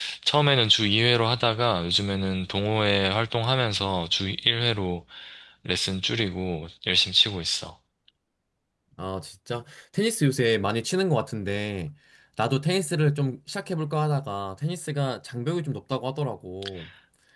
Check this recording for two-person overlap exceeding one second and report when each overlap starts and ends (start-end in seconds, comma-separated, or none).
none